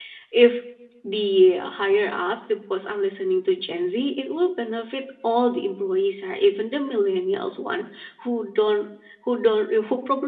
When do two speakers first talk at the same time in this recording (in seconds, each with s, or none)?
none